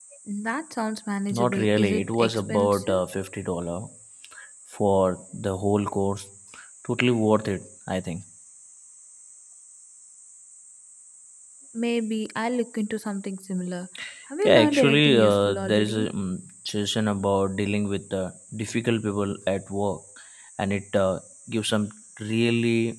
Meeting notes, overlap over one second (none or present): present